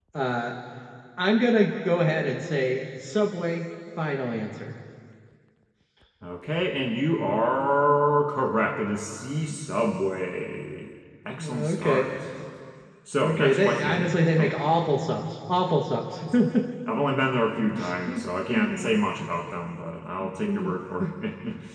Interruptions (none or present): present